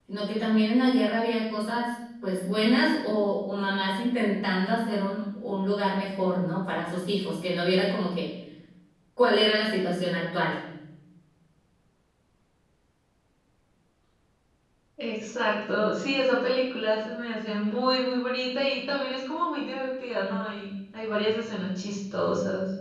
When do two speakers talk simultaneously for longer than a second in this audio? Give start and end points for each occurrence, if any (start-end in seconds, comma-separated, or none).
none